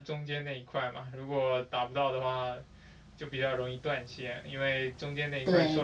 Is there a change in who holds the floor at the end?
No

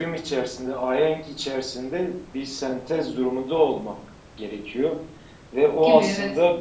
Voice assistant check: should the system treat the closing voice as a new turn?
No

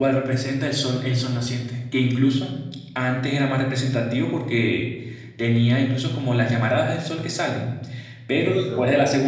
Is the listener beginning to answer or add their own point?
No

